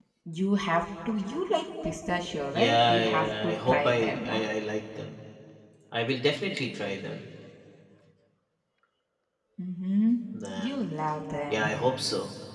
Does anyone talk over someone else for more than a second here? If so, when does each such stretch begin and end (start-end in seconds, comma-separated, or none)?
2.5-4.4